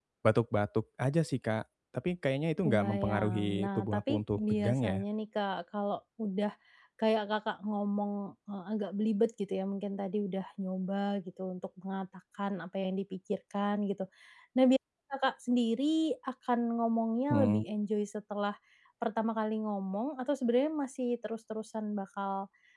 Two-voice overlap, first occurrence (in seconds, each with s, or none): 2.6 s